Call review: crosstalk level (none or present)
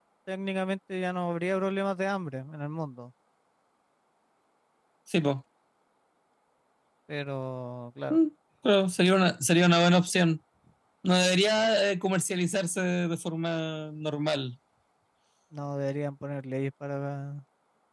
none